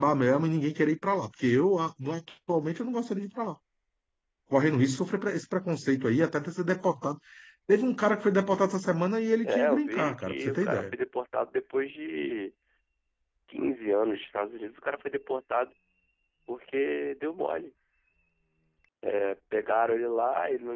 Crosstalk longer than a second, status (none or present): present